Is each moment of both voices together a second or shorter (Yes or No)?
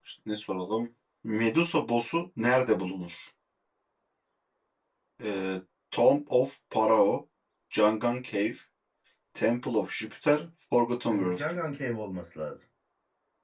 Yes